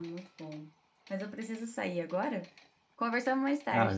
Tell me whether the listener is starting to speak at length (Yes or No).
Yes